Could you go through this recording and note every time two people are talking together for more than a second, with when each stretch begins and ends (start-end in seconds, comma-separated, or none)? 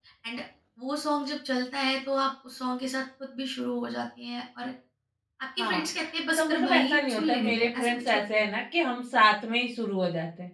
6.4-8.4